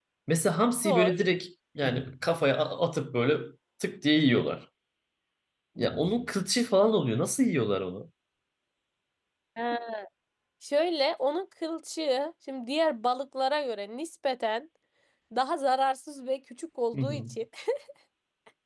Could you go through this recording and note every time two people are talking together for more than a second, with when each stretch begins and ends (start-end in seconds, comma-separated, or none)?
none